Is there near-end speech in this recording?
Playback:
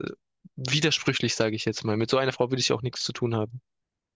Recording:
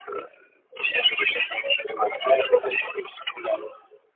No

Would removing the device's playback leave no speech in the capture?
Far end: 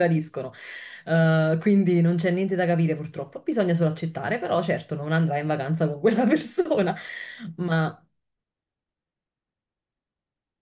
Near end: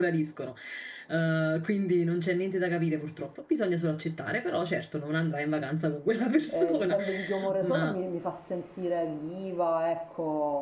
No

